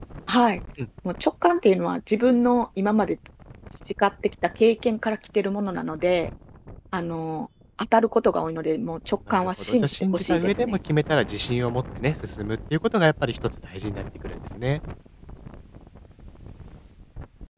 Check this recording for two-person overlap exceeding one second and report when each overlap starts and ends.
9.3-10.8

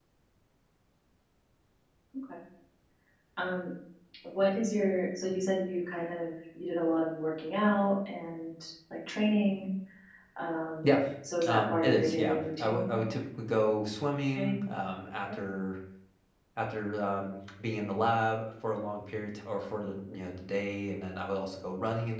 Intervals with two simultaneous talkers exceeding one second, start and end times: 11.4-13.0

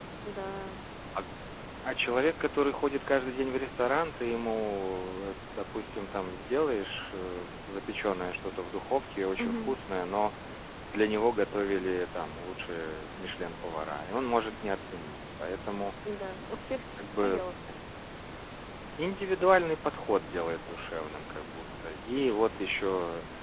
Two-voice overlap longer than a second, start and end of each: none

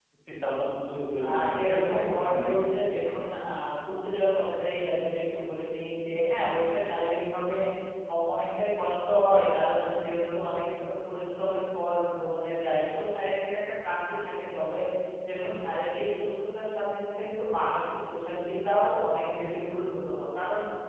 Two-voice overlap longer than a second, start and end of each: 1.2-2.6

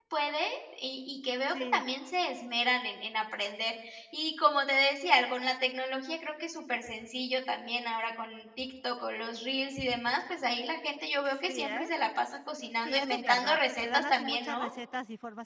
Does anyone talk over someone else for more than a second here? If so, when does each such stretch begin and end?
12.8-14.6

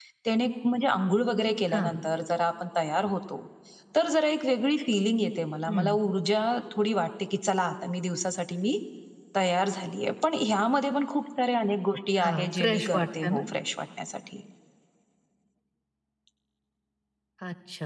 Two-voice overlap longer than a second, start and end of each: 12.2-13.4

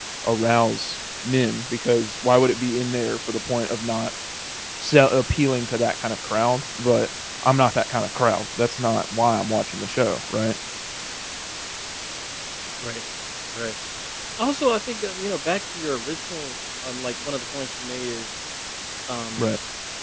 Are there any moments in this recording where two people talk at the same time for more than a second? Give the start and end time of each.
none

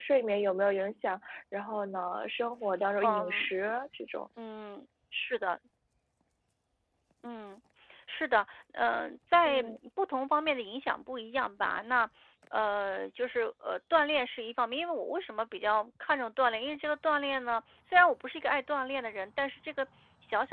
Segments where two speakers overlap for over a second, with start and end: none

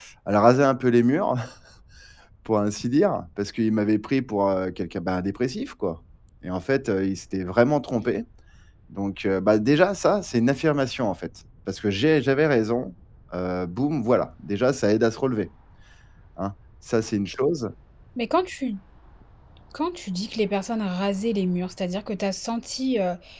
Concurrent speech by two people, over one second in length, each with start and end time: none

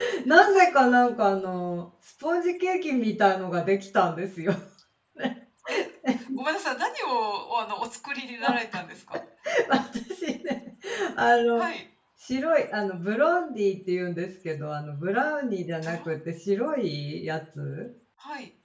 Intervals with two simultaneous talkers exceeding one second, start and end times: none

